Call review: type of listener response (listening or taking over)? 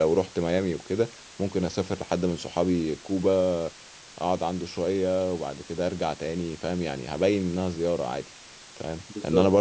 listening